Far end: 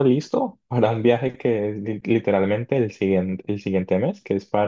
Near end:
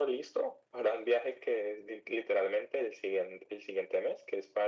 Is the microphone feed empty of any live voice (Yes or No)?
Yes